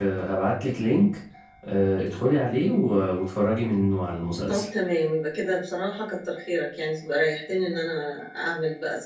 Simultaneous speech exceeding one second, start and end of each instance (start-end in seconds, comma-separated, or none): none